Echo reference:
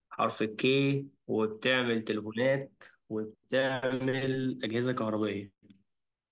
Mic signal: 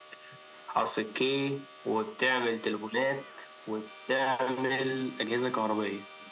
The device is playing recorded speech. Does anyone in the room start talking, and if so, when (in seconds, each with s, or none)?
none